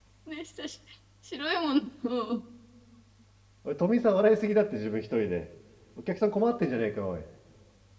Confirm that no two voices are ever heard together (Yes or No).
Yes